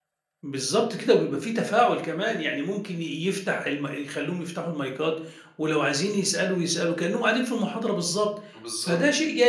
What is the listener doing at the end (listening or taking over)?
listening